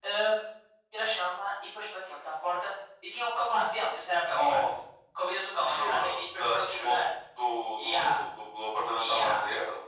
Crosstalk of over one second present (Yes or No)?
Yes